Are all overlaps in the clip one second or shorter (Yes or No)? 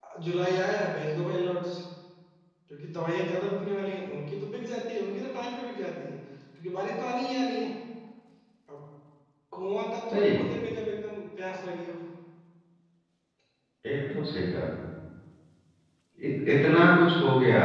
Yes